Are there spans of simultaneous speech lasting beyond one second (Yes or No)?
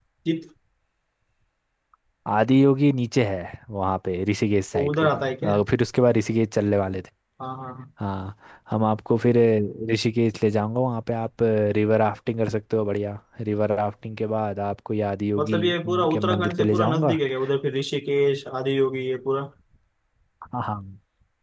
Yes